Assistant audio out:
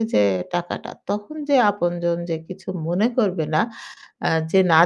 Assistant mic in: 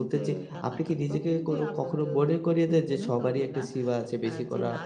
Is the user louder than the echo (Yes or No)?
Yes